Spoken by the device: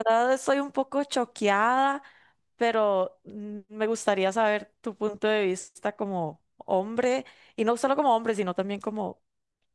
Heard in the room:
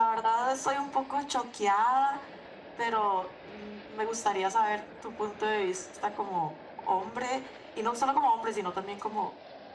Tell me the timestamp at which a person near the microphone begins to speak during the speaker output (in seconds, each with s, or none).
none